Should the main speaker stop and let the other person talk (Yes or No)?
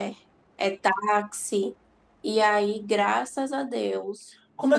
Yes